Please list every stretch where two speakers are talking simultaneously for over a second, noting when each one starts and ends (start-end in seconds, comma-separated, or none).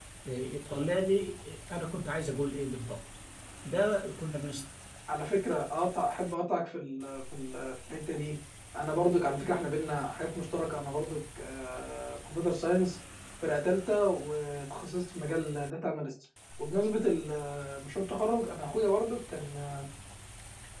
none